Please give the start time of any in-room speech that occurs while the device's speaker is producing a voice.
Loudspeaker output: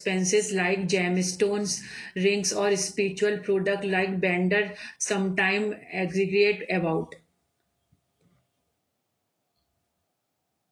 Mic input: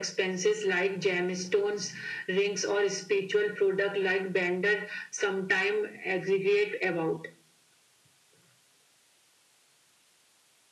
none

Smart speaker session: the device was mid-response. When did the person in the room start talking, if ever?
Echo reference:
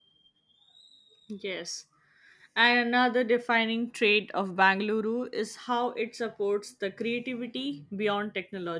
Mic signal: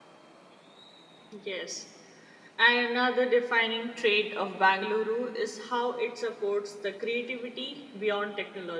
none

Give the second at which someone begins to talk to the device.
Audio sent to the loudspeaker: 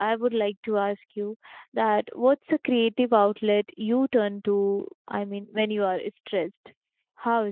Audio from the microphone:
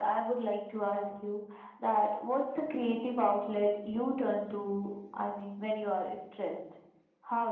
none

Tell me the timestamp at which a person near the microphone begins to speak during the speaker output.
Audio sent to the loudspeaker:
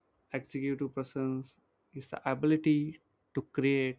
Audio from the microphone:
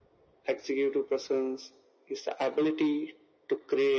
none

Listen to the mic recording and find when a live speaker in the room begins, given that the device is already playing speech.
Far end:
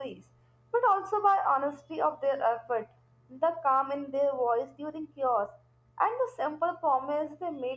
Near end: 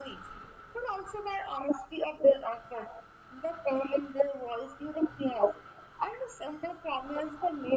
none

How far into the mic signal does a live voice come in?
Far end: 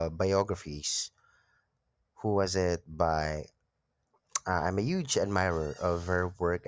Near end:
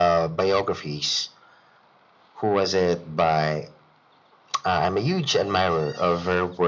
none

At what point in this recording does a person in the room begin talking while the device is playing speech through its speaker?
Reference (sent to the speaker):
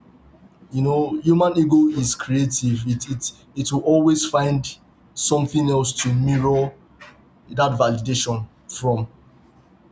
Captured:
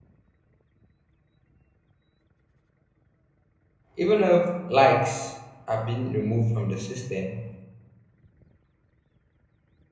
4.0 s

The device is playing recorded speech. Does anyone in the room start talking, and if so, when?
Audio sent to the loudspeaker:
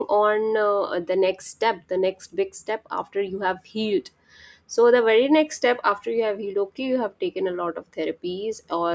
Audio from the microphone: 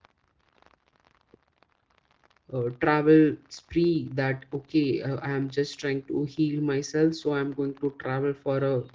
2.5 s

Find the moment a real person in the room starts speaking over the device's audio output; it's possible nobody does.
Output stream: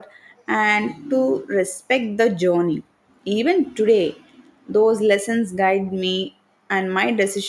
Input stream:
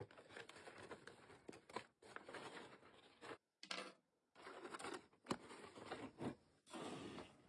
none

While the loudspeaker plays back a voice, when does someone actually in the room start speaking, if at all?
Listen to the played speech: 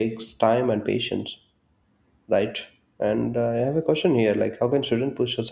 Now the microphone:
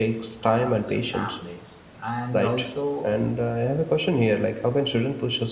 0.4 s

